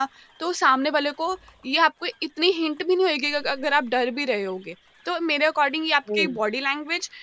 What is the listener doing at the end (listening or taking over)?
listening